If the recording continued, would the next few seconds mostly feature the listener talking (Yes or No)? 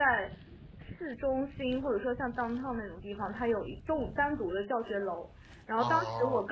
No